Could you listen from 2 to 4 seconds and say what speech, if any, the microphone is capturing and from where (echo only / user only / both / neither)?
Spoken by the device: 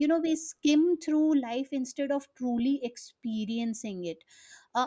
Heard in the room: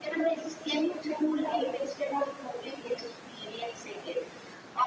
echo only